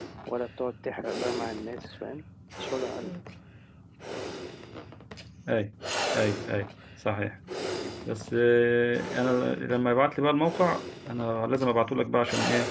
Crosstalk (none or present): none